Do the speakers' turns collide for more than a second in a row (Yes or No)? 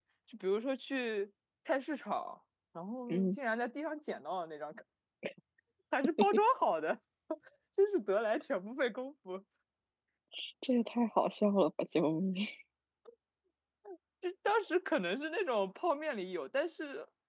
No